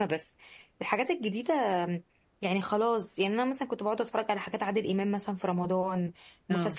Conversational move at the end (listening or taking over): listening